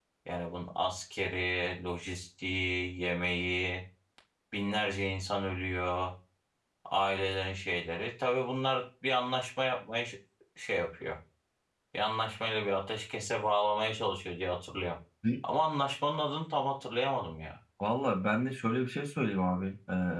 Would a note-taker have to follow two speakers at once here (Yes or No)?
No